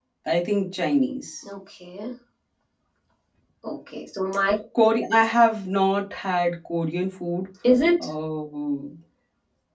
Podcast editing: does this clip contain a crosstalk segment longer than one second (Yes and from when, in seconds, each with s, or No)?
No